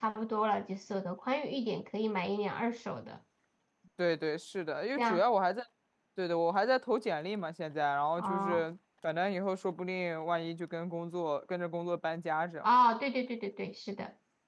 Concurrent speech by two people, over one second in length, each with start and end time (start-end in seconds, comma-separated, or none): none